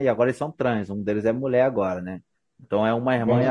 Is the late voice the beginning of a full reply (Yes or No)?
No